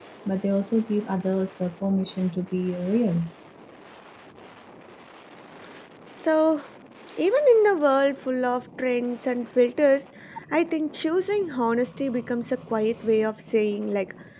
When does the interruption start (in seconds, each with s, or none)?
none